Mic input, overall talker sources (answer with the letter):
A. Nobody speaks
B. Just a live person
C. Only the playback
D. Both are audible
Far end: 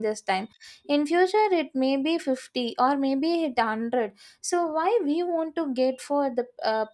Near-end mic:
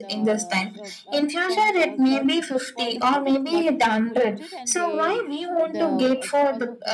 D